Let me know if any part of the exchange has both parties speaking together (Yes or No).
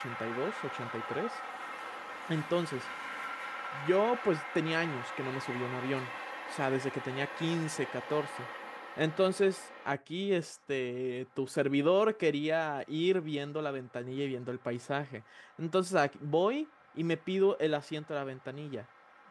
No